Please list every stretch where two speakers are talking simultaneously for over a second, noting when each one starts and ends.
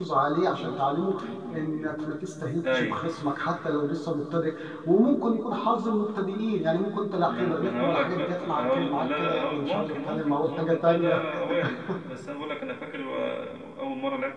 7.3-11.1

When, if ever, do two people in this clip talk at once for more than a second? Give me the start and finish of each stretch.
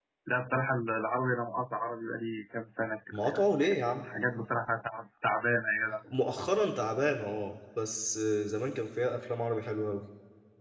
none

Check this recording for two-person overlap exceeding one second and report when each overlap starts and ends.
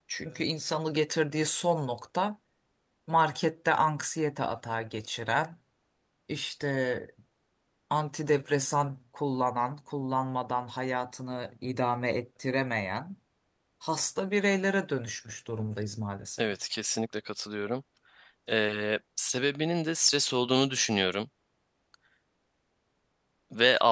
none

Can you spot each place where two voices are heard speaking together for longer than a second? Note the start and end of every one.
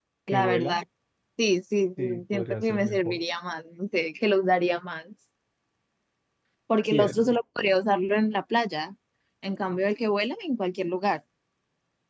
2.0-3.2

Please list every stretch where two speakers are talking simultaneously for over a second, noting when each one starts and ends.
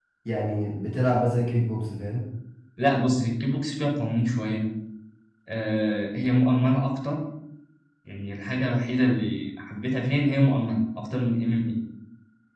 none

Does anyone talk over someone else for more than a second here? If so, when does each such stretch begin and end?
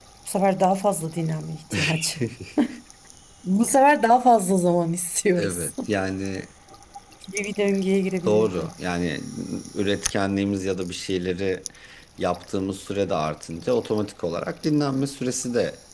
none

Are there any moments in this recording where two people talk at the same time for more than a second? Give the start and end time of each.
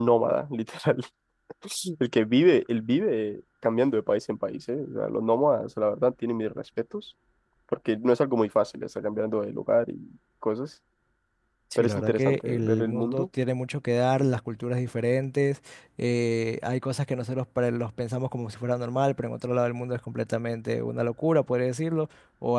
11.8-13.3

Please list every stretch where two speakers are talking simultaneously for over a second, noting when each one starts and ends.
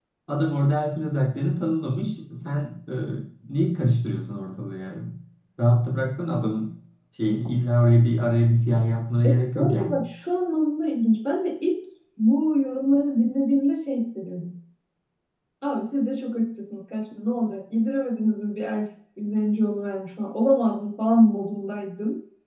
none

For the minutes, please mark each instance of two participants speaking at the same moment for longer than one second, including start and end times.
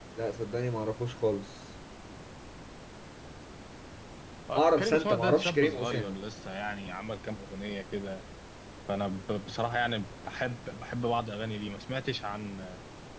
4.6-6.2

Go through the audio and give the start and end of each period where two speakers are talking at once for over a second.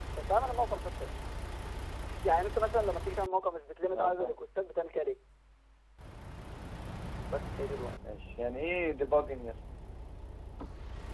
none

